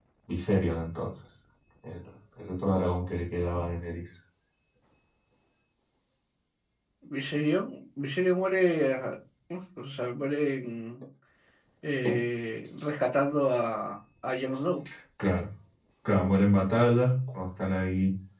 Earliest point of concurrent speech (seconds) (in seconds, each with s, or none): none